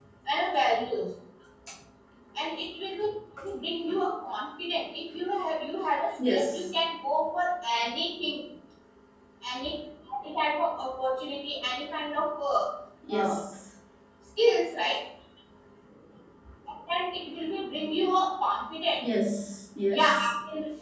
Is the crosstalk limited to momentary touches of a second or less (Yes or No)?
Yes